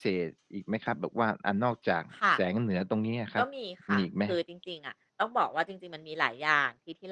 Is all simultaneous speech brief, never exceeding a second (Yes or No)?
Yes